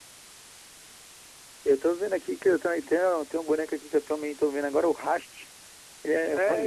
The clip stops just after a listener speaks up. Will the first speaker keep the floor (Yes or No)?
No